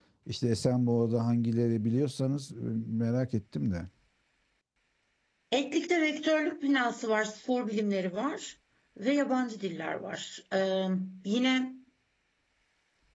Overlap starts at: none

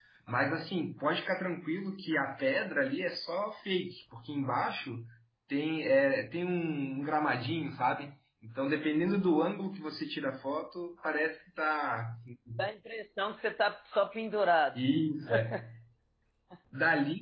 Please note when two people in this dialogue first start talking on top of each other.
none

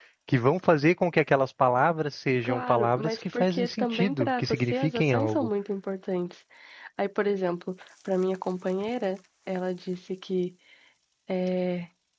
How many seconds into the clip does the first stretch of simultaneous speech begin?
2.4 s

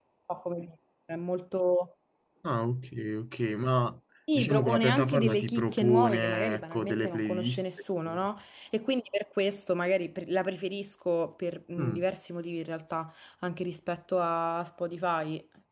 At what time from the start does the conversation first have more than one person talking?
4.3 s

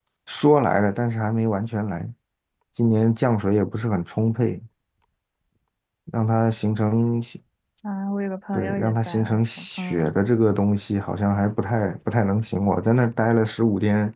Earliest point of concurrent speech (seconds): 8.5 s

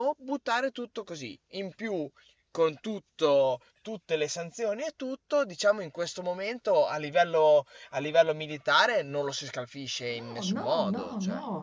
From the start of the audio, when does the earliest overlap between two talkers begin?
10.2 s

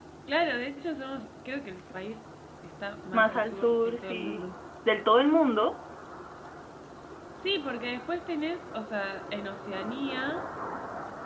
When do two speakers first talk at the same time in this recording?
3.1 s

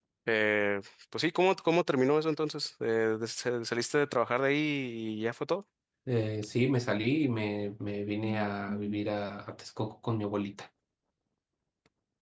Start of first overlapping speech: none

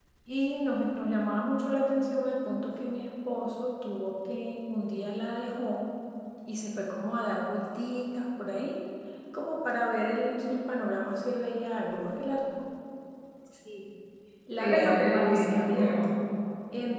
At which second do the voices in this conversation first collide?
14.6 s

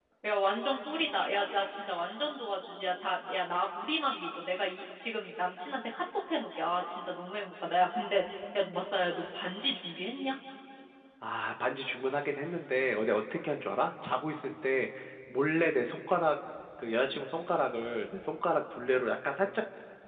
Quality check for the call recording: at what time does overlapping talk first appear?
none

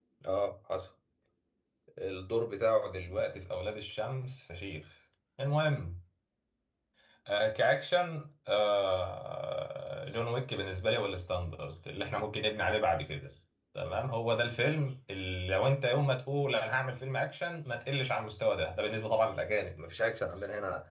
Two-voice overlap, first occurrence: none

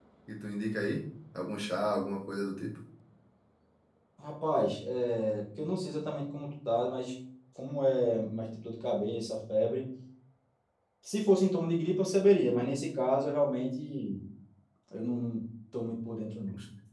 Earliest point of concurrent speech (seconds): none

